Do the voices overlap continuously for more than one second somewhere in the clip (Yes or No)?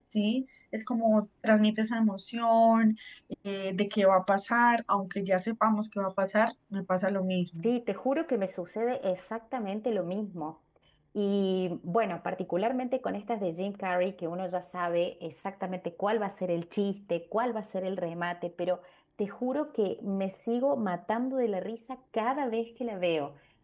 No